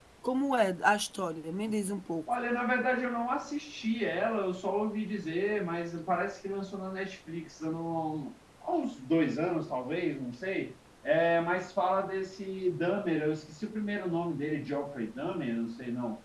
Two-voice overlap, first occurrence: none

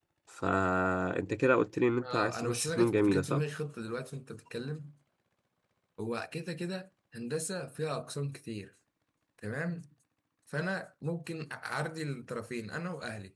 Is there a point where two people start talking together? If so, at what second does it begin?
2 s

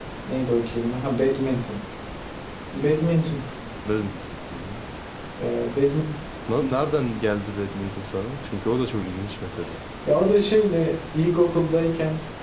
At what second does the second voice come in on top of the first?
none

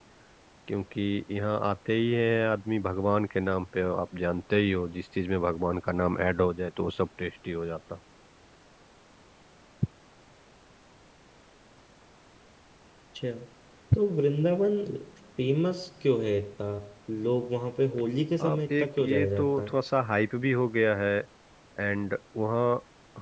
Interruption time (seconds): 18 s

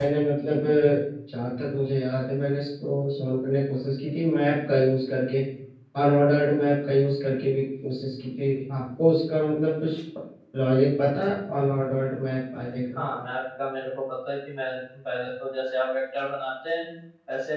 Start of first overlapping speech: none

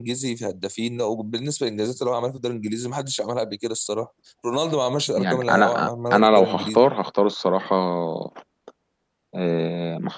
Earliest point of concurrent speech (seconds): 5 s

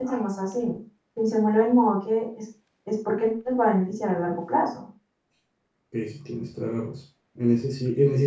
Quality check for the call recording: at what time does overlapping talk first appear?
none

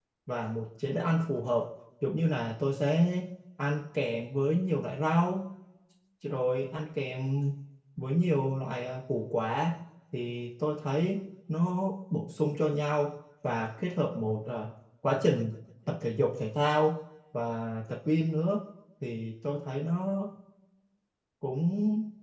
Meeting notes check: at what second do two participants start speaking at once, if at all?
none

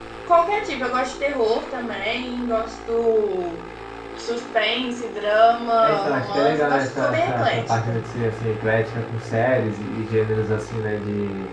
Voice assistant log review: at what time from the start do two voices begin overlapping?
6 s

